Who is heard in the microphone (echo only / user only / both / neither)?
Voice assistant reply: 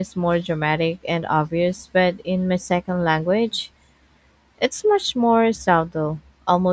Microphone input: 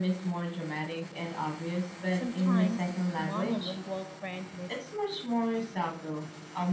both